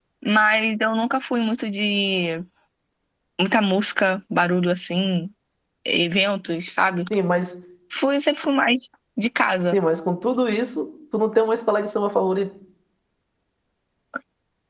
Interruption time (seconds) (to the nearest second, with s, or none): none